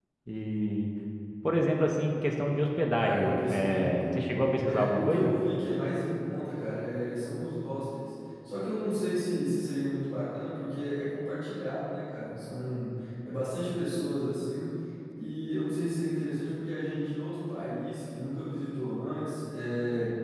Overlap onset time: 3.0 s

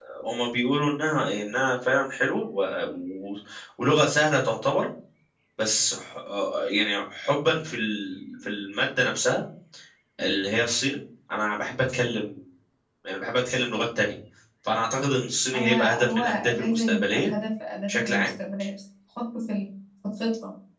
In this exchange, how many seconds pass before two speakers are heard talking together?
15.5 s

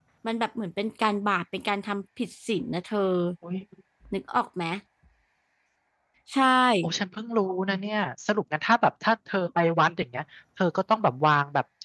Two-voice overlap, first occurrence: none

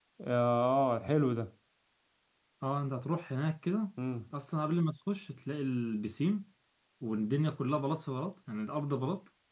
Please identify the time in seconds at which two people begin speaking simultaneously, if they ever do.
none

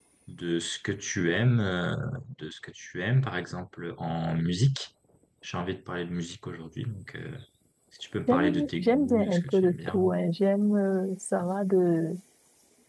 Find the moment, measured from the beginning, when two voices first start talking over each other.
8.3 s

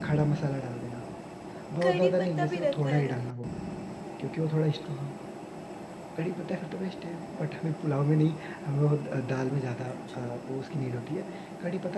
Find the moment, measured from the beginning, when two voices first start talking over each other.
1.8 s

